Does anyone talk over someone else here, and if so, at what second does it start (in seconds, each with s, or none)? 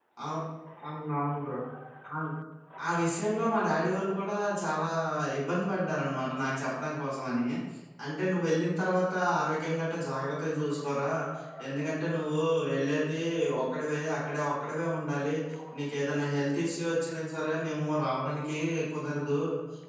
none